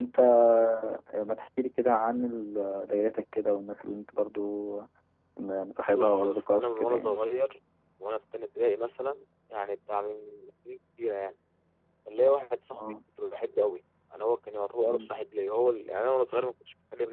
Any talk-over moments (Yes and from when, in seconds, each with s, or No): Yes, from 5.9 s